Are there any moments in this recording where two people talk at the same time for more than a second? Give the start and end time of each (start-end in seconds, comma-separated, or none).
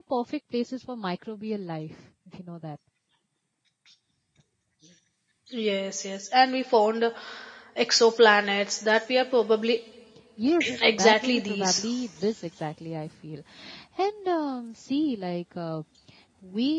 10.6-11.8